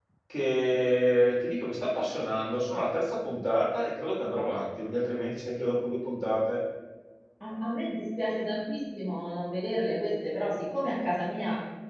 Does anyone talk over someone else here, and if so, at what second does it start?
none

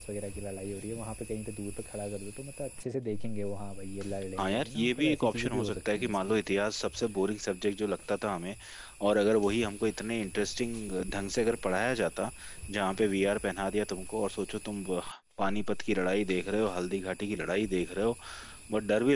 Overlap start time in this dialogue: 4.4 s

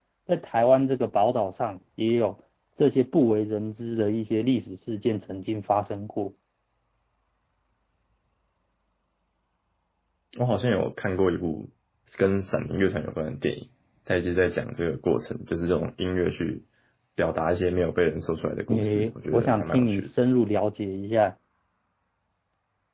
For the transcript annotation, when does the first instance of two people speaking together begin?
18.7 s

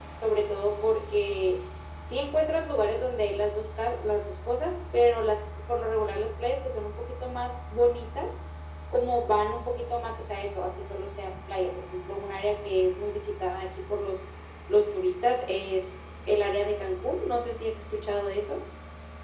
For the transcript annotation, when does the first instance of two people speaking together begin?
none

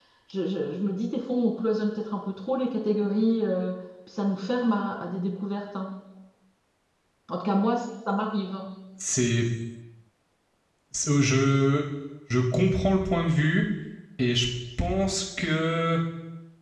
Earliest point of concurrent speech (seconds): none

